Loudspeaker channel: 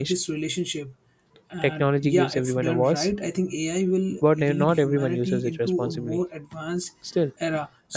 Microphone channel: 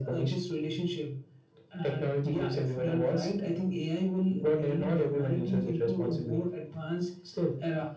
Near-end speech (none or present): none